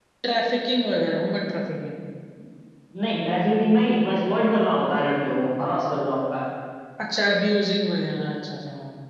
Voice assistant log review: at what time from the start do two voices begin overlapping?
none

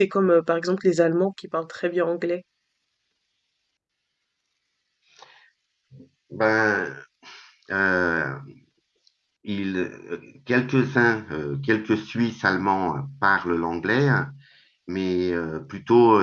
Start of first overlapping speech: none

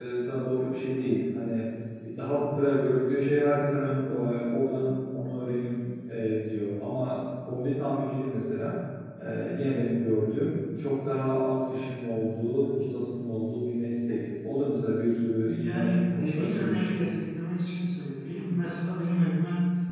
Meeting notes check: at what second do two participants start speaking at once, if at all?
15.4 s

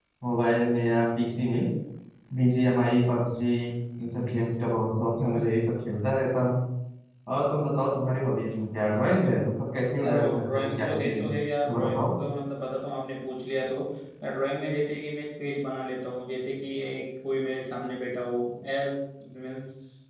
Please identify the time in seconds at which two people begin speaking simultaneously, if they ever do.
10.0 s

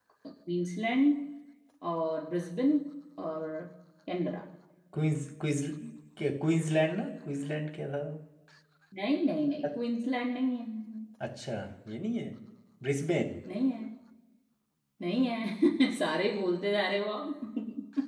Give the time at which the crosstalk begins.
none

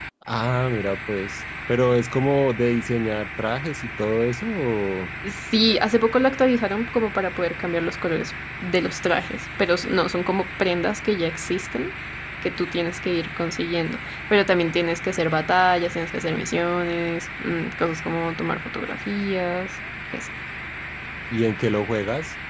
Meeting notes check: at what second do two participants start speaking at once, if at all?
none

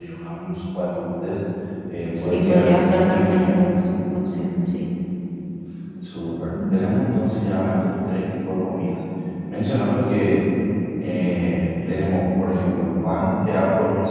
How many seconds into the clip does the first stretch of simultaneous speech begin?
2.2 s

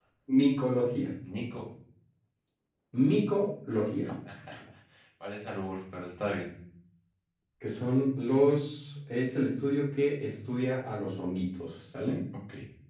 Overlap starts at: none

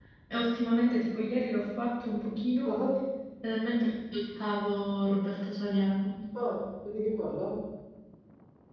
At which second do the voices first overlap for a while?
none

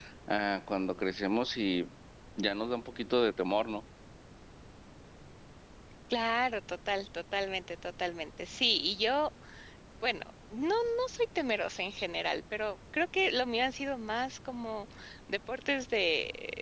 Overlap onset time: none

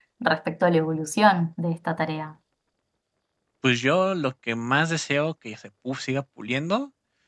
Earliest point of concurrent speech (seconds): none

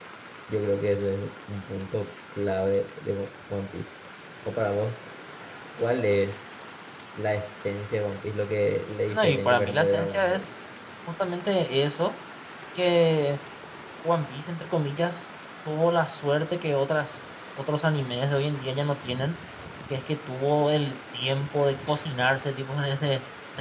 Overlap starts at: 9.1 s

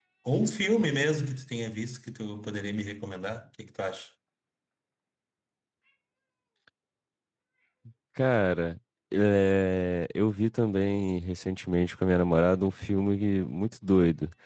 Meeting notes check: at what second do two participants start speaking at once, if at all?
none

